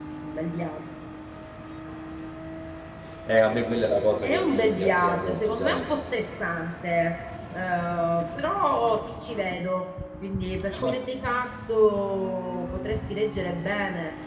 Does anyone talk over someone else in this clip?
Yes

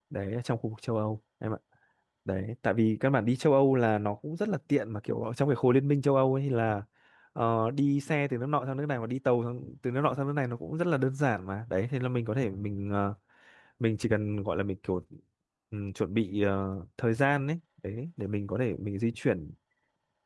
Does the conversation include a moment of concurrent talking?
No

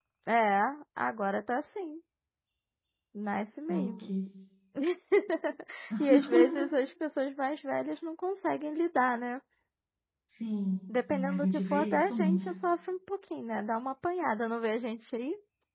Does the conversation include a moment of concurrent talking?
Yes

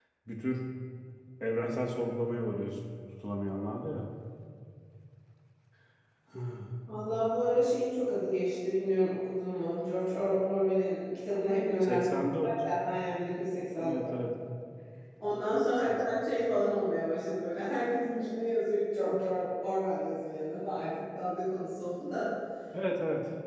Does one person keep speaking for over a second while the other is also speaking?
No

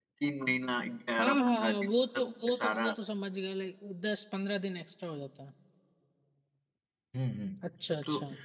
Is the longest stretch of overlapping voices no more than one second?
No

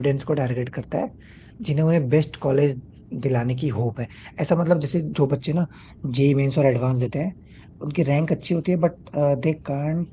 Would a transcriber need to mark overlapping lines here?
No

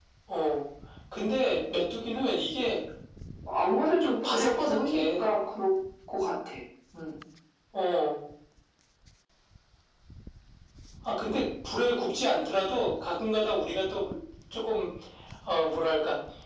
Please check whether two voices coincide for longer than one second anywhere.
Yes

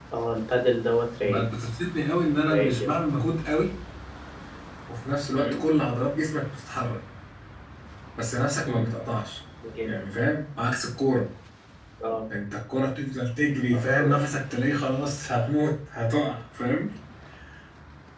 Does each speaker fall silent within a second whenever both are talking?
Yes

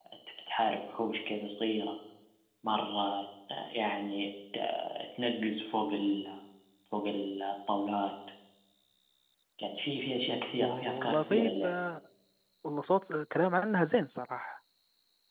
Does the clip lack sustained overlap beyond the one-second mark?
No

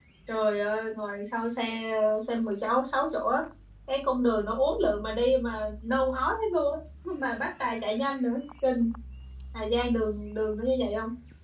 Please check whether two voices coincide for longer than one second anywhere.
No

